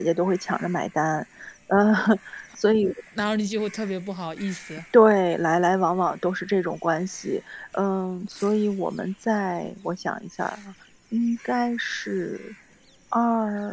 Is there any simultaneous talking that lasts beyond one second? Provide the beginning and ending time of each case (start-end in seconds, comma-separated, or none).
none